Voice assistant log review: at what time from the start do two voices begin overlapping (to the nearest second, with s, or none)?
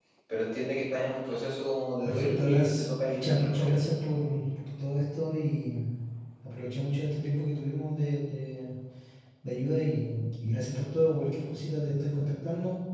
2 s